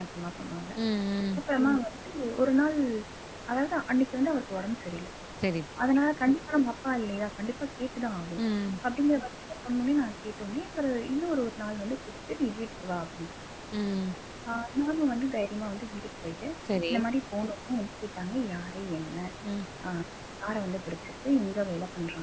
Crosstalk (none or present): none